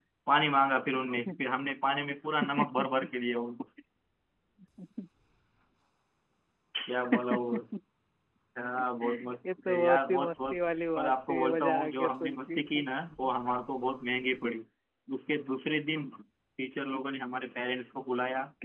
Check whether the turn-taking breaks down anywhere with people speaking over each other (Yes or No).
Yes